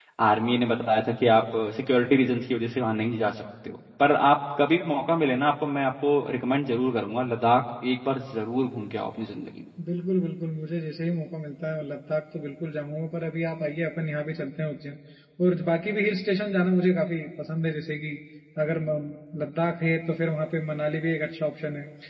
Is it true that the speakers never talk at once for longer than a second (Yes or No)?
Yes